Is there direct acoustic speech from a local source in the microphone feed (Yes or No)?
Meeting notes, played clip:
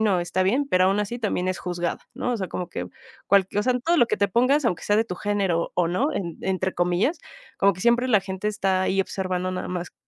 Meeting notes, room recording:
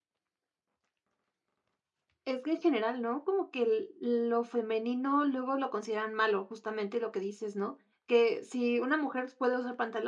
Yes